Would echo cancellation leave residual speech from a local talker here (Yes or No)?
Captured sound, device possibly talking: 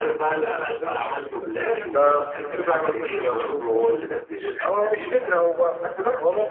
Yes